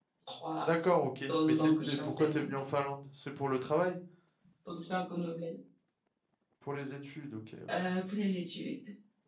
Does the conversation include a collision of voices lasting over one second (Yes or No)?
Yes